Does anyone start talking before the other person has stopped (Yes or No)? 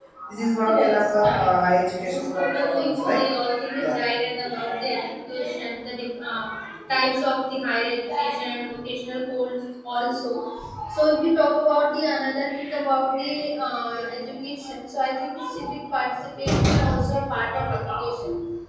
Yes